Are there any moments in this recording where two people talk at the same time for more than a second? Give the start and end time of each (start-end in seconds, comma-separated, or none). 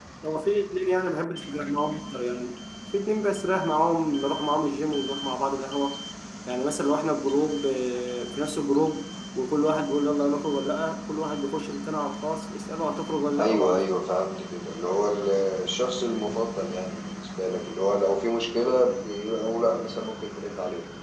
none